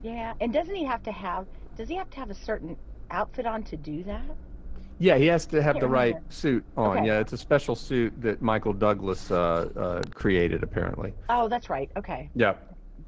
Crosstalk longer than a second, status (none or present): none